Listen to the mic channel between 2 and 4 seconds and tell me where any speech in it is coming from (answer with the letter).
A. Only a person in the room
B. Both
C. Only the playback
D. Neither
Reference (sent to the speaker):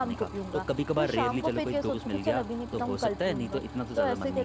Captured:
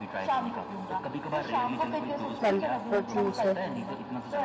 B